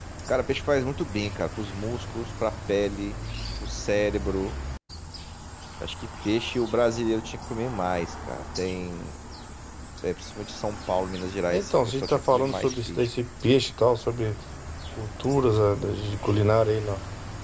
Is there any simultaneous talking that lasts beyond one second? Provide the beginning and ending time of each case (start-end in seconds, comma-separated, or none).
11.5-13.1